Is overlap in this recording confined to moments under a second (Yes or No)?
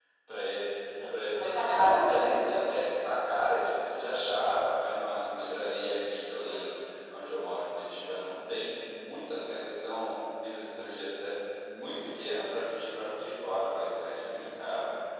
No